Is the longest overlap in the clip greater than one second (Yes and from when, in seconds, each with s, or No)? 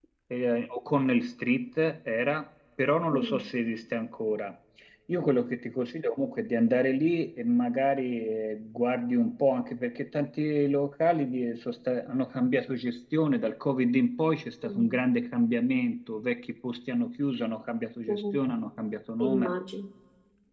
No